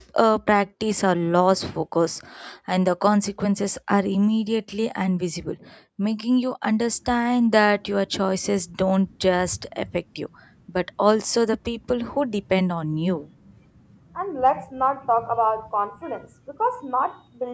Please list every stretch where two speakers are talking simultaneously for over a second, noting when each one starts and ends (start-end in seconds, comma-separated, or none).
none